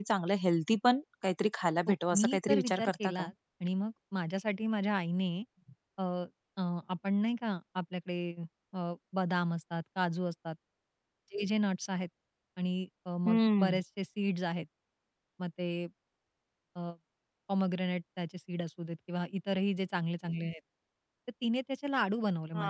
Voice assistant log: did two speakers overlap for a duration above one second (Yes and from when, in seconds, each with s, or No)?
Yes, from 1.9 s